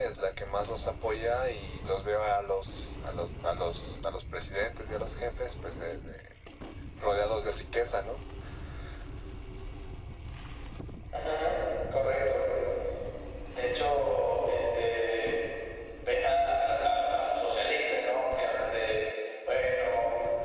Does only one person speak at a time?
Yes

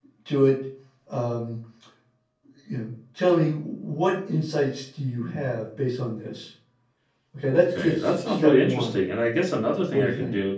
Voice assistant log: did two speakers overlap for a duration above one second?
Yes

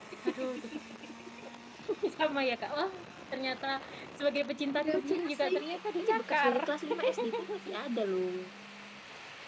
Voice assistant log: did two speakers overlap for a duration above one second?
Yes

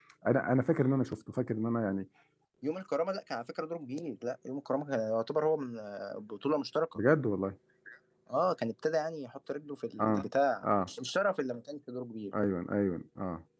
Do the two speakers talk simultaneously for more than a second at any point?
No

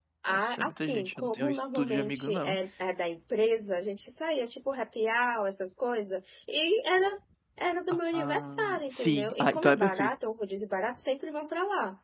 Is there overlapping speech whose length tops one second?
Yes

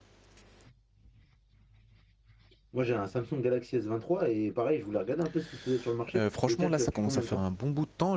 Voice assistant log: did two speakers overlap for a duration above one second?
Yes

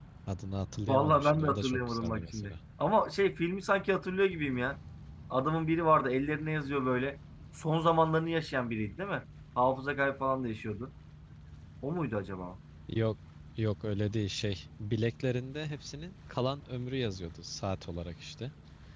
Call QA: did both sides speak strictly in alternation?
No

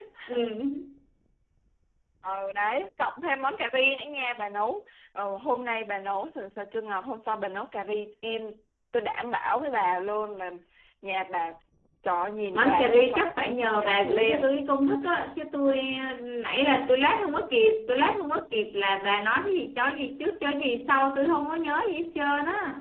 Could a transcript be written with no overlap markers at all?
No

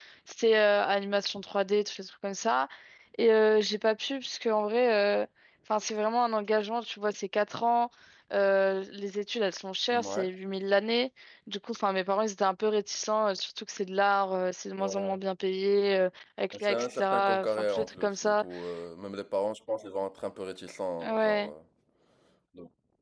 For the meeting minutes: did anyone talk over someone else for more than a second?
Yes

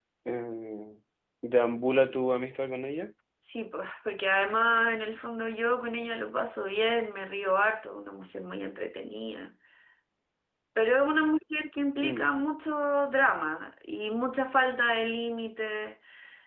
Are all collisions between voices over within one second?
Yes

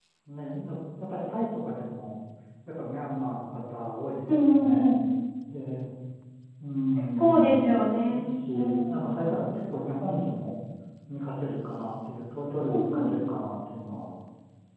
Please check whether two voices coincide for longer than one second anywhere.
Yes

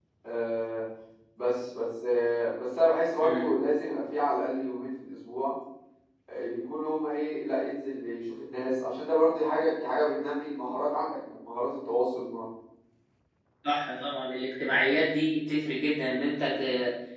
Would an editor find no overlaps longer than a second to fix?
Yes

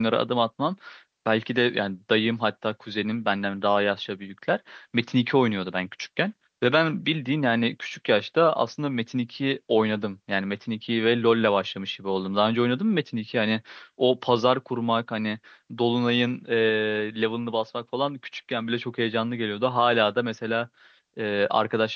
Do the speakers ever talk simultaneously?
No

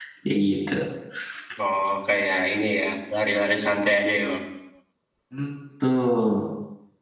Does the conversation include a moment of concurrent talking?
No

